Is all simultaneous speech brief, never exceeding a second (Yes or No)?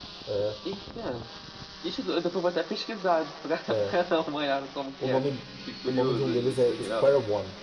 No